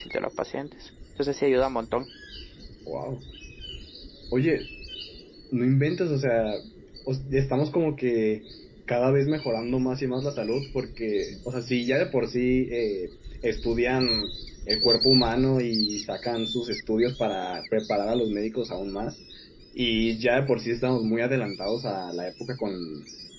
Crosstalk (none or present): none